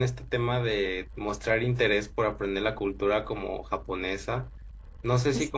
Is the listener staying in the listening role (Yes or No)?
Yes